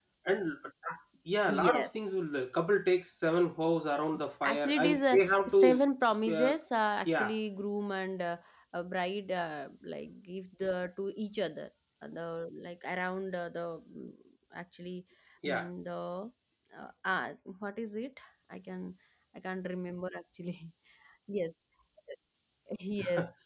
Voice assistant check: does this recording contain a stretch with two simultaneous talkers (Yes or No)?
Yes